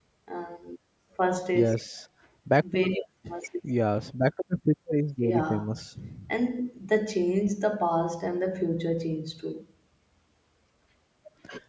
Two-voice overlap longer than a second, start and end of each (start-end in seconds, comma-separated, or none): none